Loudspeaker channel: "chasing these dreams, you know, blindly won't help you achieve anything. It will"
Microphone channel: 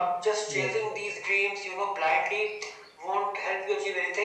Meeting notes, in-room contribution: present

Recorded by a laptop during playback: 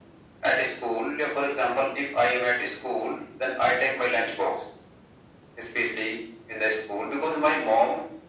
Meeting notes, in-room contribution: none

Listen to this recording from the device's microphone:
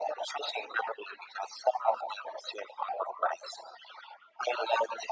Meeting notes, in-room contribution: none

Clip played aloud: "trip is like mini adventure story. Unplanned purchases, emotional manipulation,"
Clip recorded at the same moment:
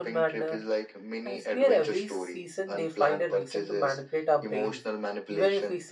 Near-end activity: present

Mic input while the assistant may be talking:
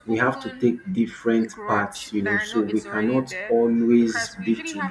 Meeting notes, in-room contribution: present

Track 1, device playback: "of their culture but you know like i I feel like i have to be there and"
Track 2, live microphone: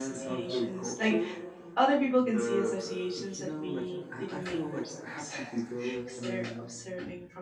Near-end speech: present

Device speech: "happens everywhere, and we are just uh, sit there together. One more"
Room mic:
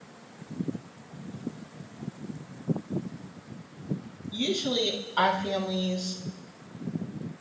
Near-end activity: present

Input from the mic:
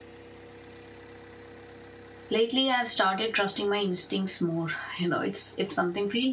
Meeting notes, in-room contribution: present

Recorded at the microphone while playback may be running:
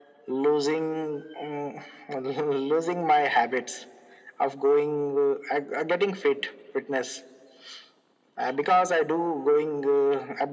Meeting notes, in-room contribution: none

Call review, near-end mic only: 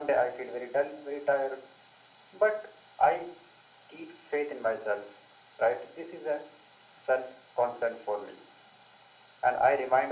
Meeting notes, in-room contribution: none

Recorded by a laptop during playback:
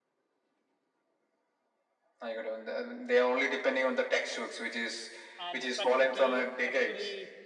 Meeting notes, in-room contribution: present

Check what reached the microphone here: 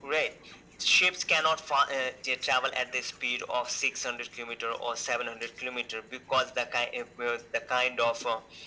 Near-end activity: none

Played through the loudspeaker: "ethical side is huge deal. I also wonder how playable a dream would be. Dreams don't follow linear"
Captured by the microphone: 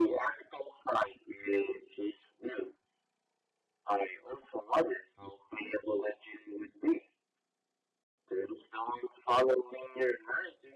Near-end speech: none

